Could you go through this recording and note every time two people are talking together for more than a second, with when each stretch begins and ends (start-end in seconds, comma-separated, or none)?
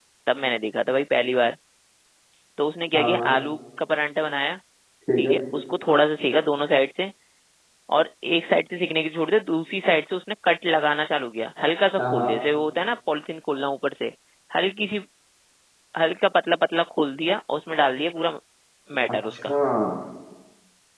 none